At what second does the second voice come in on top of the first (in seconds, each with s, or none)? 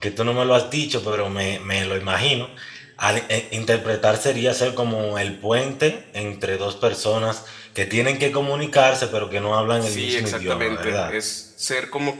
9.8 s